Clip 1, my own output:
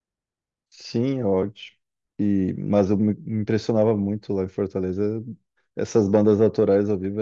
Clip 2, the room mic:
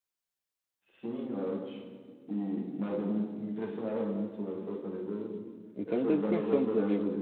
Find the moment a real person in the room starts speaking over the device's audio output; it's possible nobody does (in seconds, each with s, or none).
5.7 s